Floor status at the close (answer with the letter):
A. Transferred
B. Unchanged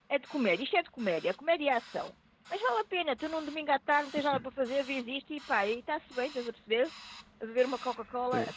A